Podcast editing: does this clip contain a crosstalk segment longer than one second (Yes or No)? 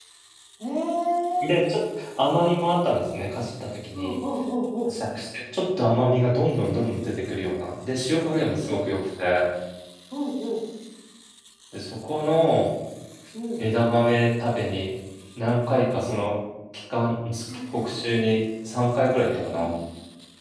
No